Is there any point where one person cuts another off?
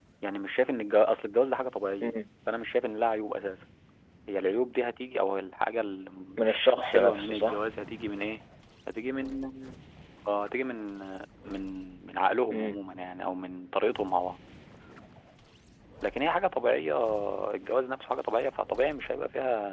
Yes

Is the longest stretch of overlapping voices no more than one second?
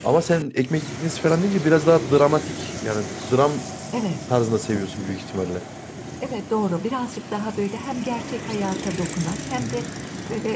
Yes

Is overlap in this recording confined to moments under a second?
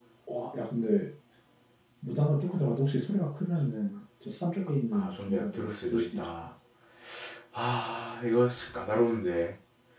No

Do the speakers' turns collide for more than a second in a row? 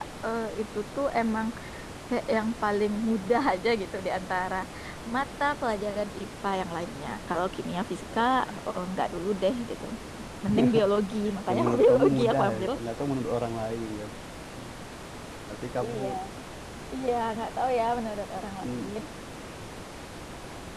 Yes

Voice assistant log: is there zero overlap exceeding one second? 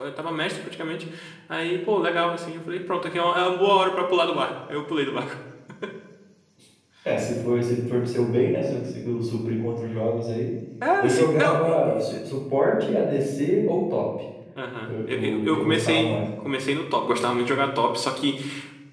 No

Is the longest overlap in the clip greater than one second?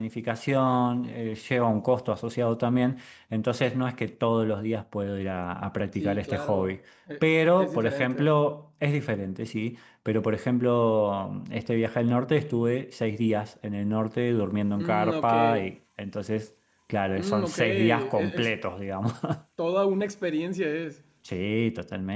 Yes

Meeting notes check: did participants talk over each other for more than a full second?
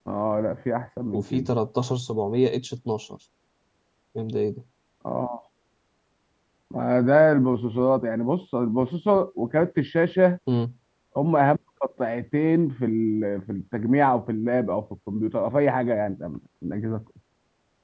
No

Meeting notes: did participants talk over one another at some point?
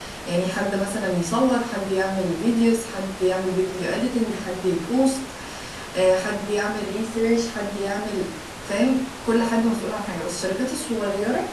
No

